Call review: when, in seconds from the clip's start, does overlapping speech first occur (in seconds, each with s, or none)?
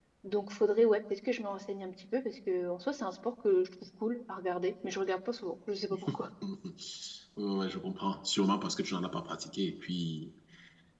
none